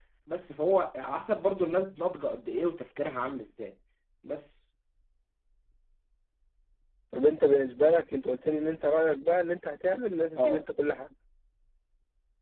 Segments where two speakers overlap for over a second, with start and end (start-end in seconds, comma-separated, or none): none